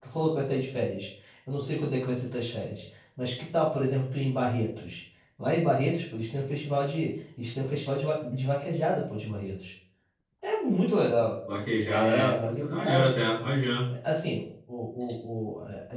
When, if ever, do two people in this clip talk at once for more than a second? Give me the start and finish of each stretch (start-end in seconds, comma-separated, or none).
11.8-13.1